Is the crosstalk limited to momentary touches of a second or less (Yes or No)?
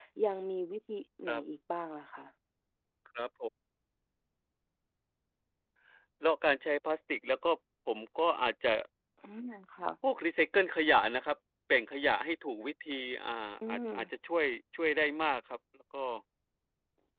Yes